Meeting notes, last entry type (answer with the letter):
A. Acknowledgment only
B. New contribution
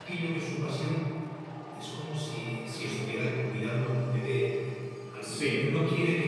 A